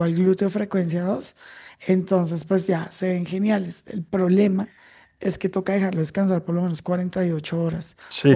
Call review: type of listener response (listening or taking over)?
taking over